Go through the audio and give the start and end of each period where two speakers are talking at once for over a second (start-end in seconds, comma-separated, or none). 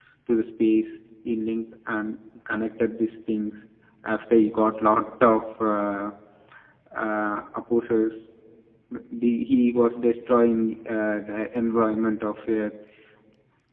none